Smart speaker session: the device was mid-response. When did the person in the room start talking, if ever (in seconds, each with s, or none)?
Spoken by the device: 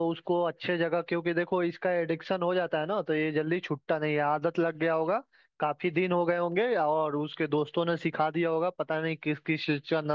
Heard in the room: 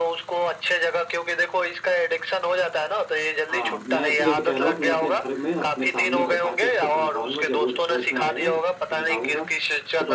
3.5 s